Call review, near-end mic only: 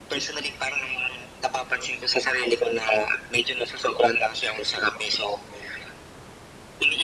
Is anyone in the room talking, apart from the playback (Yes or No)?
No